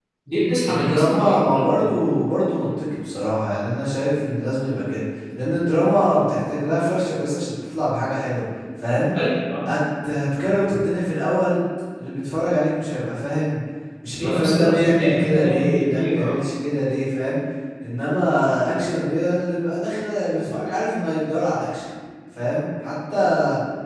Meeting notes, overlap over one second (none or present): present